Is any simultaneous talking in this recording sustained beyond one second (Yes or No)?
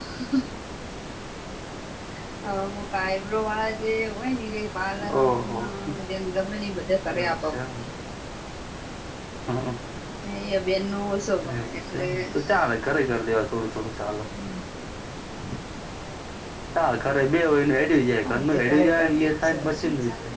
Yes